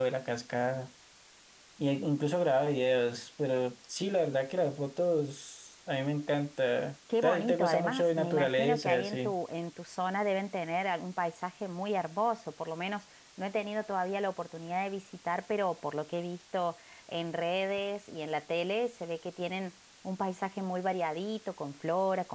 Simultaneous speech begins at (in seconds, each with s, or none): 7.1 s